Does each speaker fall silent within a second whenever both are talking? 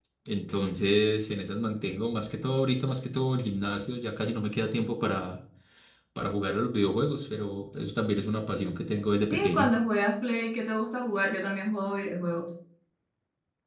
Yes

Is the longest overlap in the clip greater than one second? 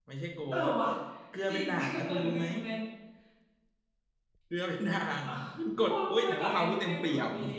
Yes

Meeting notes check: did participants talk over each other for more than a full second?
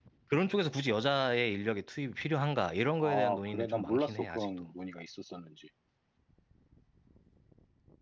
Yes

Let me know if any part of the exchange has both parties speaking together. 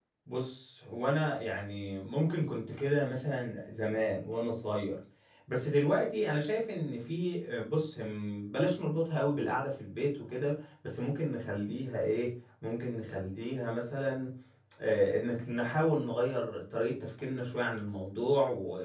No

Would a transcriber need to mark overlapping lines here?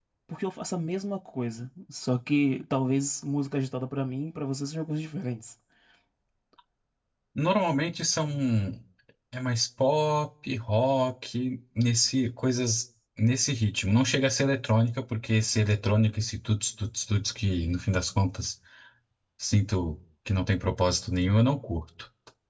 No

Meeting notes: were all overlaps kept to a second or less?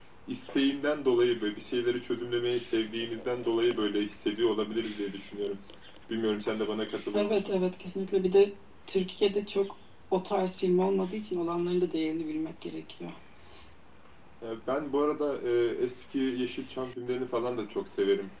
Yes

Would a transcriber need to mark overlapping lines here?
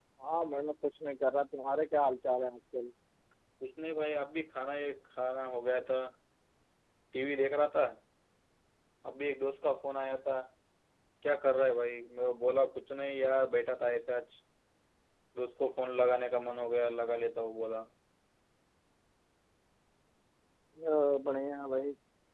No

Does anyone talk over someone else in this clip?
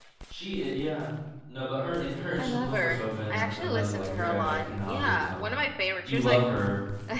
Yes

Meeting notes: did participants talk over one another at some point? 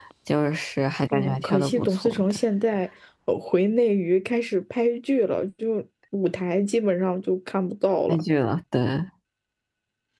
Yes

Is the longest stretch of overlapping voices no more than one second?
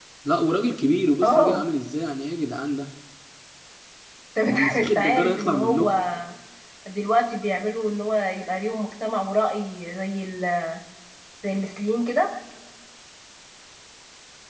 No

